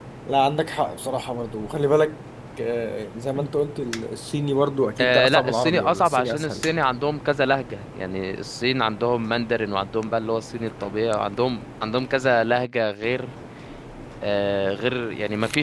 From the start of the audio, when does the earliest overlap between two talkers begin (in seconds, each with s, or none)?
5.0 s